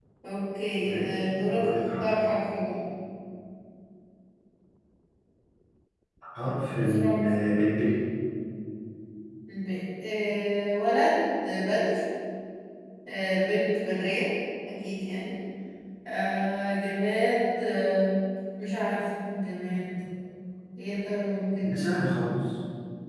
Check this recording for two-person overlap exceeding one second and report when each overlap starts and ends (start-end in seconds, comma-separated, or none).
0.8-2.1